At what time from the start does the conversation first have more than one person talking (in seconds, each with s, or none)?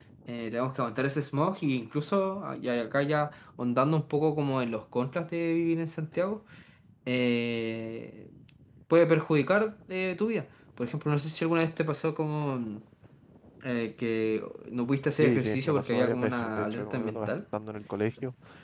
15.2 s